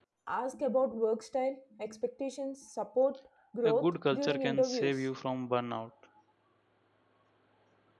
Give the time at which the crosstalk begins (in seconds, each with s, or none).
3.6 s